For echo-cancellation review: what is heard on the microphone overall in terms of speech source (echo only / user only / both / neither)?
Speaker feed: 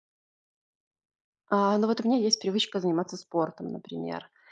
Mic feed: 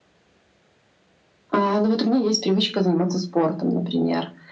echo only